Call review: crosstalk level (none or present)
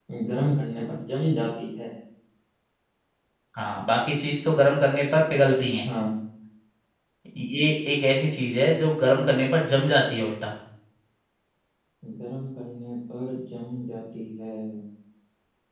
none